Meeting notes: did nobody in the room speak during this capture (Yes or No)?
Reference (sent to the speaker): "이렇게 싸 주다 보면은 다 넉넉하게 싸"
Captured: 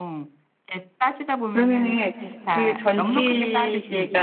No